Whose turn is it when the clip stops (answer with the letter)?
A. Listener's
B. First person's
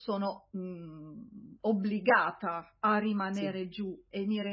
B